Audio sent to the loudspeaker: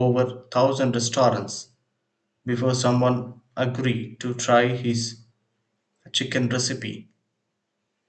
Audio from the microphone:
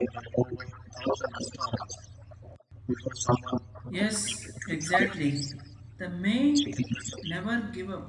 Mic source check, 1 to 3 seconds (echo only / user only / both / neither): echo only